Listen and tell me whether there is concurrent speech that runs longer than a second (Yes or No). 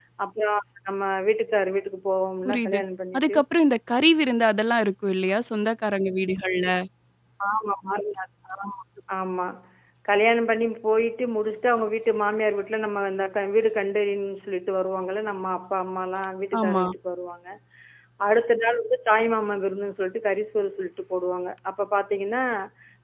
No